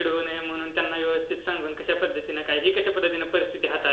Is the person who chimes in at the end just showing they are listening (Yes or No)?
No